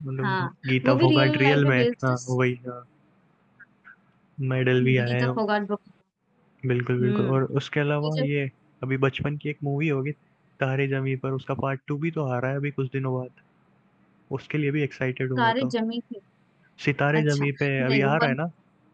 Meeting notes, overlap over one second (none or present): present